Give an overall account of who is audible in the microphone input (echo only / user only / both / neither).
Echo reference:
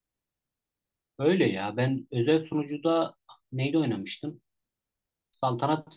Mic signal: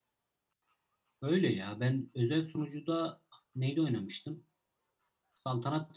echo only